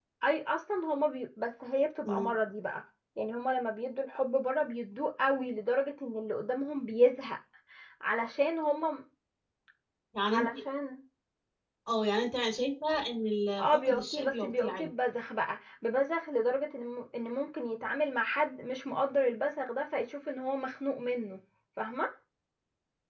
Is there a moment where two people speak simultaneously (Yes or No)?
Yes